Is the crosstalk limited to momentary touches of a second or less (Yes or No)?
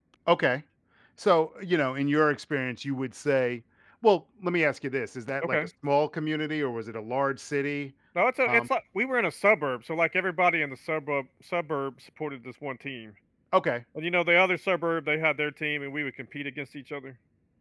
Yes